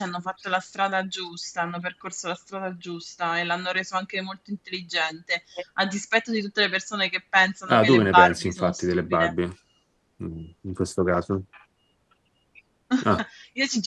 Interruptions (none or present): present